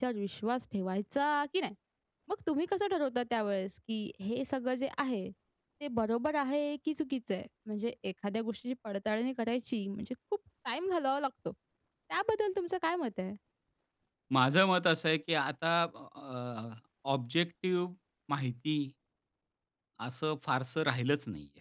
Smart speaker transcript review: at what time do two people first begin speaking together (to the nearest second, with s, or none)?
none